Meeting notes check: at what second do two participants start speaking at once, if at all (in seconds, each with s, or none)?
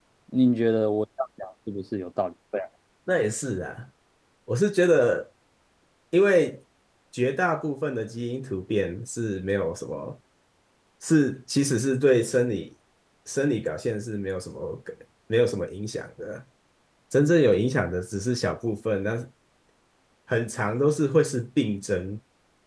none